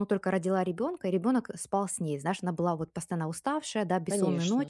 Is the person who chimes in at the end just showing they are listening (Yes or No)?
Yes